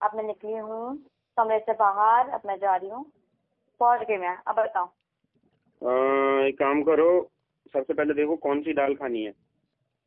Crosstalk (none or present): none